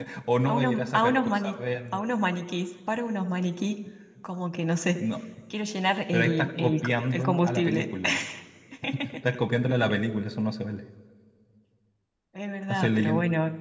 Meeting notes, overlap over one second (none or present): present